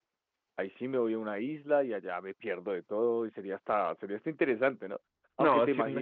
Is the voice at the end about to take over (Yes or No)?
Yes